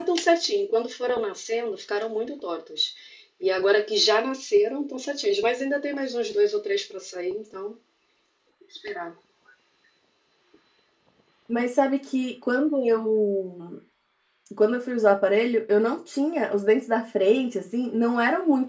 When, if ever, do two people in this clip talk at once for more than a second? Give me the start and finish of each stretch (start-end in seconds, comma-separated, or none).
none